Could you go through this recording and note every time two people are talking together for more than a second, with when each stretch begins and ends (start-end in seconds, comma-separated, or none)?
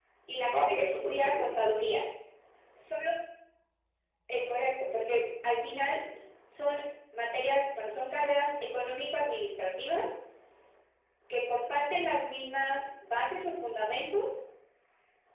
0.5-2.0